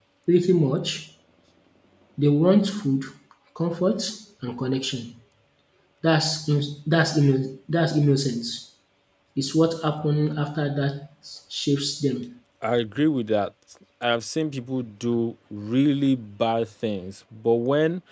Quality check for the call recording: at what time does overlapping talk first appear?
none

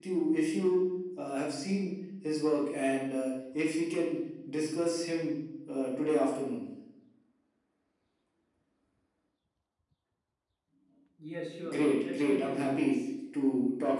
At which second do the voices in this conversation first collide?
11.7 s

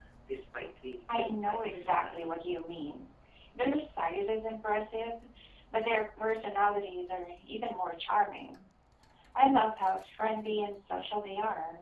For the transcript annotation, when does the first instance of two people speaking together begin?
1.1 s

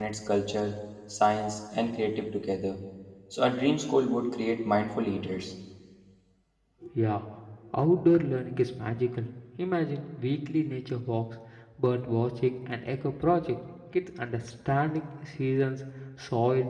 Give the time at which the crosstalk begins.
none

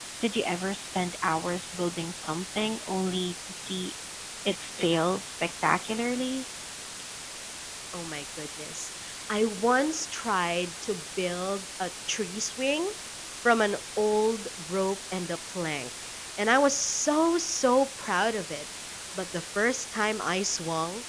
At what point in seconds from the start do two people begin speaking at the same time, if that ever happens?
none

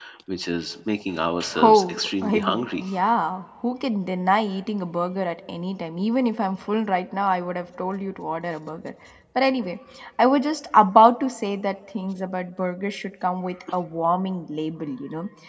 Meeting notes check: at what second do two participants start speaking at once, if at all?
1.6 s

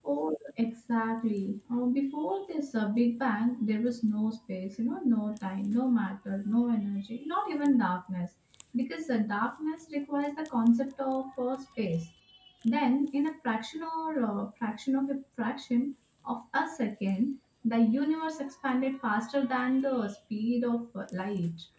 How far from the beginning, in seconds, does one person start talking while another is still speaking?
none

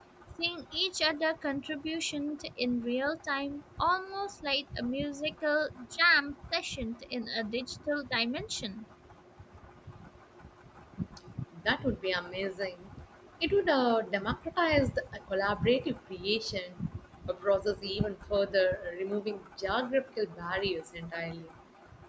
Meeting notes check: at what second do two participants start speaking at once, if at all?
none

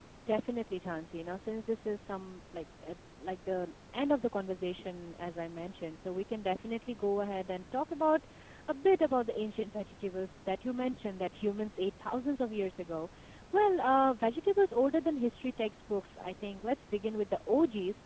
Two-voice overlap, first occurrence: none

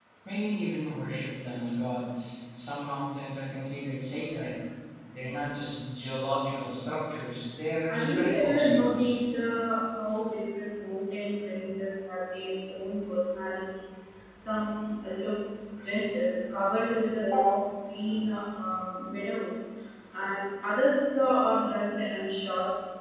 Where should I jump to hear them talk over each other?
7.9 s

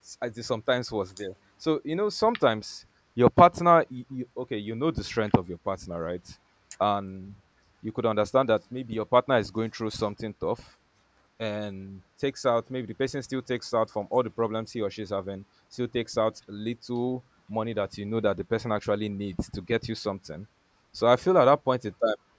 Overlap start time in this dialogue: none

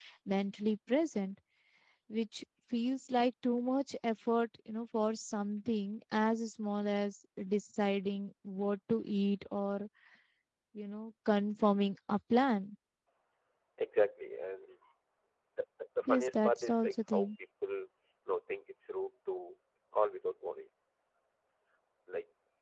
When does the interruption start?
16.1 s

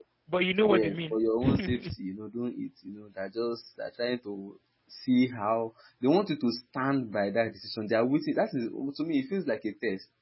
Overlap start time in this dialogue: 0.7 s

